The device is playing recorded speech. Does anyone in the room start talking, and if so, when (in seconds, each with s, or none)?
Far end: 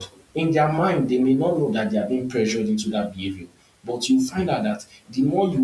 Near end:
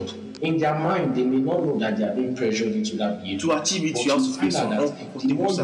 3.4 s